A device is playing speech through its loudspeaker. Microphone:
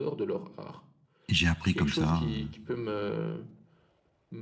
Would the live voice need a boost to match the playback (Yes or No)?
No